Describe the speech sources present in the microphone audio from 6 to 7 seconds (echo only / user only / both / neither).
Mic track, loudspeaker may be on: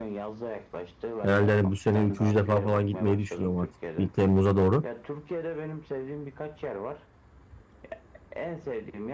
echo only